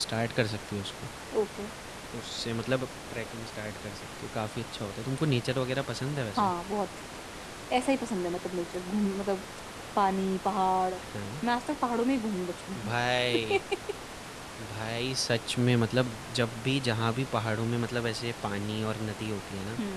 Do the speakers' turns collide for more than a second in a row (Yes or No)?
No